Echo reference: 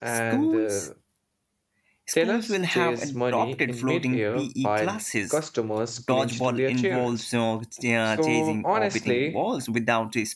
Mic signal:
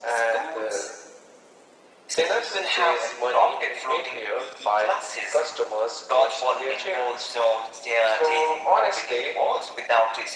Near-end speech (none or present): none